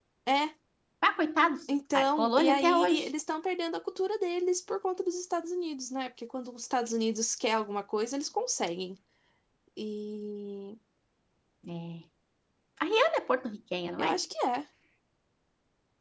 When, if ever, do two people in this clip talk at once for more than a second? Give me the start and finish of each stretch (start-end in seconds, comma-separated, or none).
1.7-3.1